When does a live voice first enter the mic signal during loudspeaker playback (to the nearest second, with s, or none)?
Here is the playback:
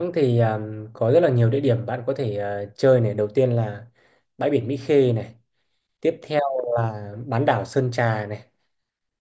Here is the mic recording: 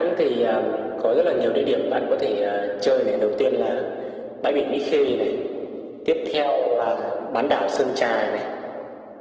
none